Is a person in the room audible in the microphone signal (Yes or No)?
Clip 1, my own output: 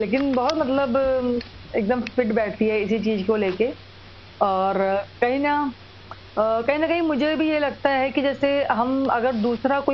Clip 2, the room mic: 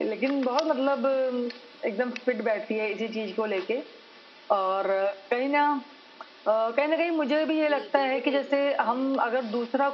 Yes